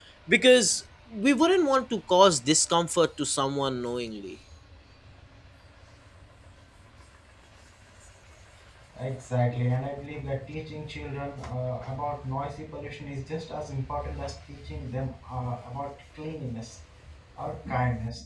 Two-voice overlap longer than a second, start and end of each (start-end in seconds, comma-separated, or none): none